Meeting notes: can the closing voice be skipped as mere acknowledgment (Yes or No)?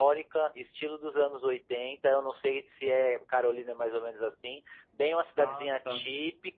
Yes